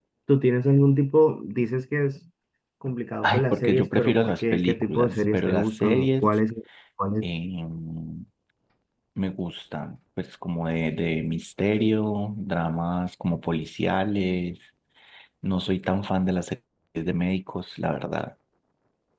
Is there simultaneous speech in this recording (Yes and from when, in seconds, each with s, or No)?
Yes, from 3.2 s